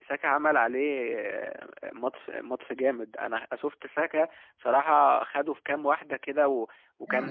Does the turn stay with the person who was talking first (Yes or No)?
No